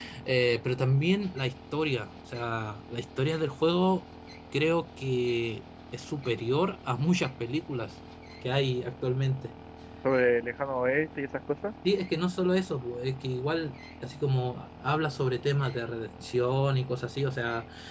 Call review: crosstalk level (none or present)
none